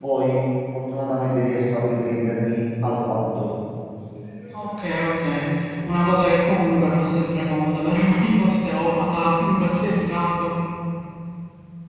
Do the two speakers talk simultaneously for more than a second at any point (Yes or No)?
No